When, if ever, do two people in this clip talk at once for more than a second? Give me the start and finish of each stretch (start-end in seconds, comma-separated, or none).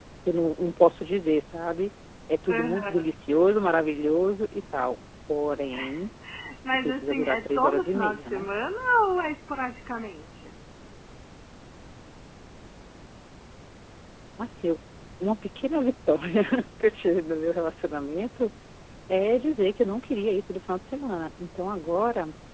6.7-8.5